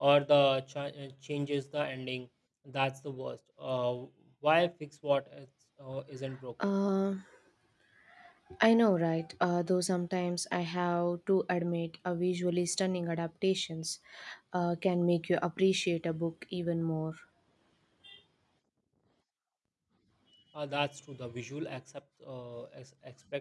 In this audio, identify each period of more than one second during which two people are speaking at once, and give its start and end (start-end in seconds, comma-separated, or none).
none